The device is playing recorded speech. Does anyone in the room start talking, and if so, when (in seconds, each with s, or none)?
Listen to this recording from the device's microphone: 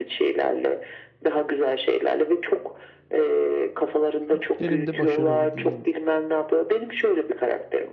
4.2 s